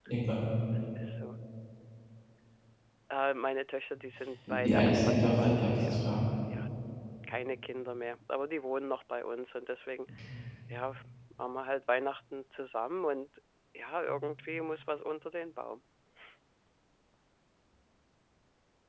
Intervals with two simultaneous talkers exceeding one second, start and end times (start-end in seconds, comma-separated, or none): 4.5-6.2